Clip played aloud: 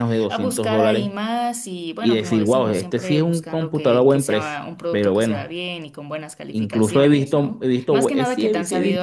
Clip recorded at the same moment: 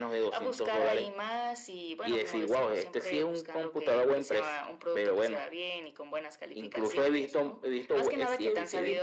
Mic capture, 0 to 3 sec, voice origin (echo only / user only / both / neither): echo only